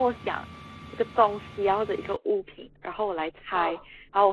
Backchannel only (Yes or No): Yes